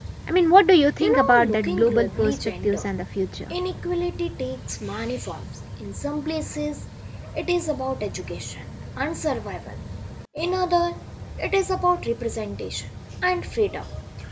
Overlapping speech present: Yes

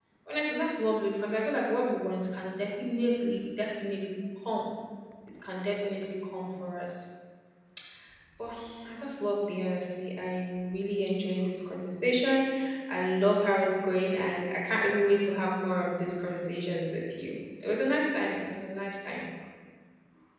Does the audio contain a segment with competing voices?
No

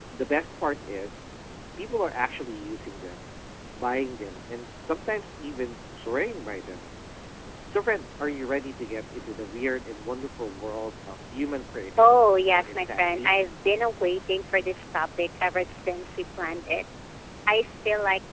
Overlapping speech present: Yes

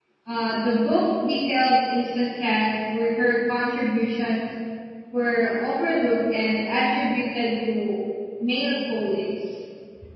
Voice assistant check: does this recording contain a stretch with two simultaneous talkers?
No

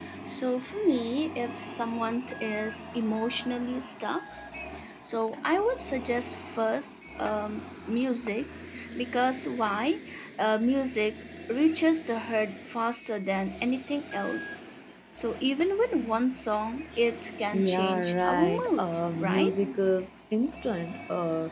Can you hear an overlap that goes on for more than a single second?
Yes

